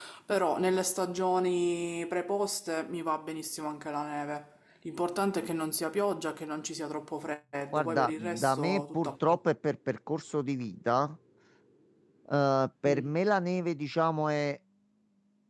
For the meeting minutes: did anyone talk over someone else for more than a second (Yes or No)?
Yes